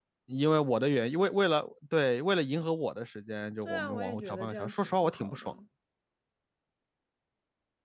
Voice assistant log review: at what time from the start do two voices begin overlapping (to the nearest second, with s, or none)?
4 s